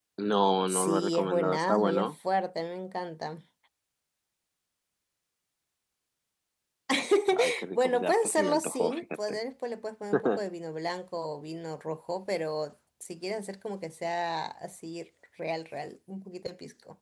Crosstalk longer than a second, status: present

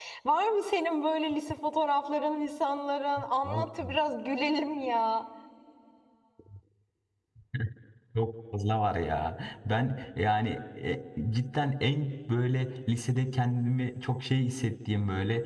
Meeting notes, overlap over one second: none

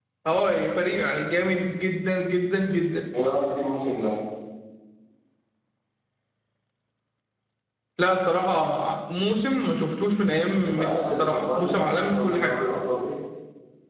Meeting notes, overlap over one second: present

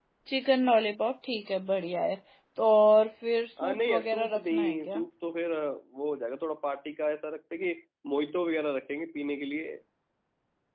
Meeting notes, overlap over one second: present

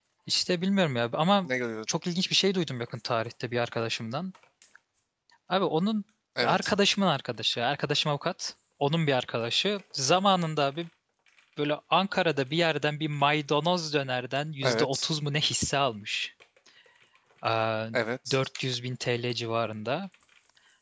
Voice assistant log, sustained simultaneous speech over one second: none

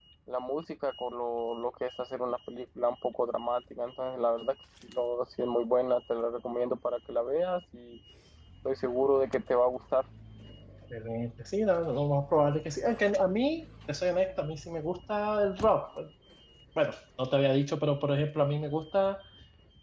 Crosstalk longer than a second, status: none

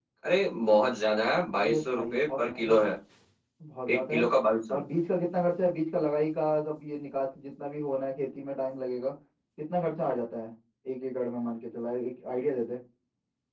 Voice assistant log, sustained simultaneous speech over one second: present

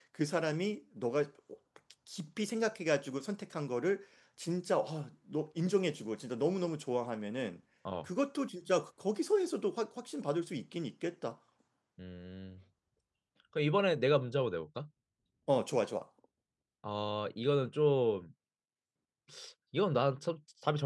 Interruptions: none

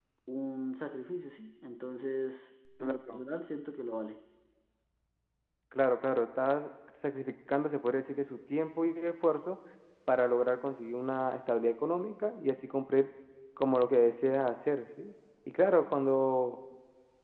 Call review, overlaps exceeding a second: none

